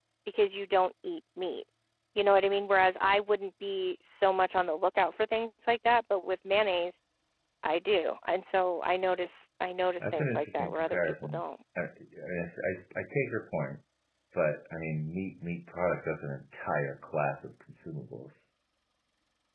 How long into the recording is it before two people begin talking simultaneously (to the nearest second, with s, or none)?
10 s